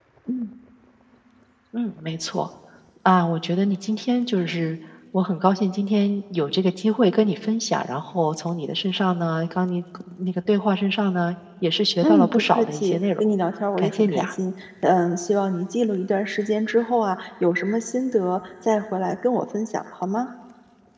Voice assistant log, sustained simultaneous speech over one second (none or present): present